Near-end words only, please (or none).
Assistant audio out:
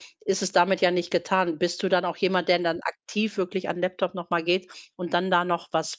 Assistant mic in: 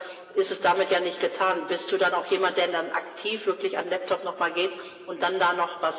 none